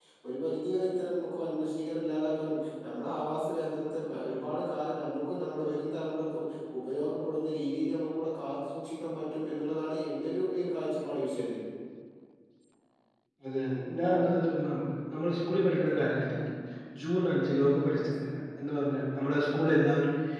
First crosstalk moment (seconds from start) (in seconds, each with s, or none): none